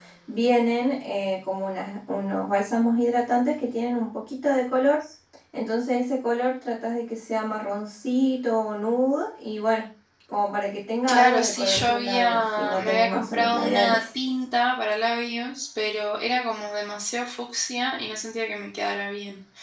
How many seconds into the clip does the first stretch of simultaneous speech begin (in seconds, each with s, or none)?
11.1 s